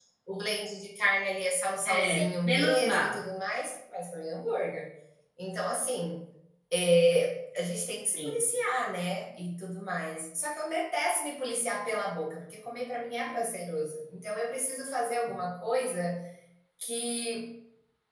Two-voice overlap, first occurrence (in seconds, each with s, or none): 1.9 s